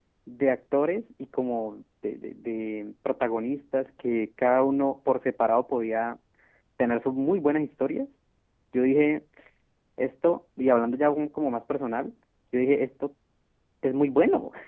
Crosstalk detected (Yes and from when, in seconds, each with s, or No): No